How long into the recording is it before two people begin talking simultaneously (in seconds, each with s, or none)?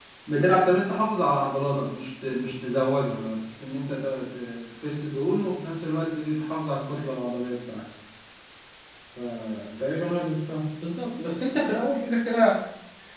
none